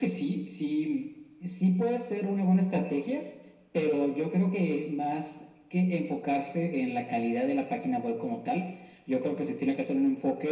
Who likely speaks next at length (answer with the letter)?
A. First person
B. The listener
A